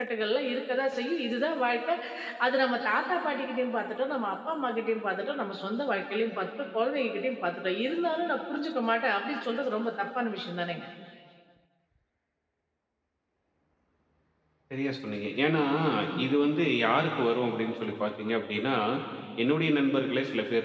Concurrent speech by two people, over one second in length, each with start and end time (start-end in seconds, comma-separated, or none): none